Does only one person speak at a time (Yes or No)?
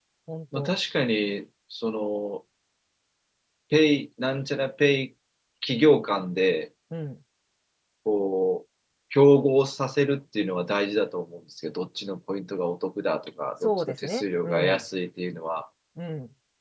No